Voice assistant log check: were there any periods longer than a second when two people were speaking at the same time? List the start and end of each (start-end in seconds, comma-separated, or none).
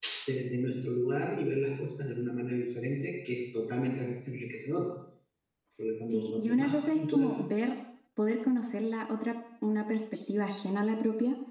6.1-7.4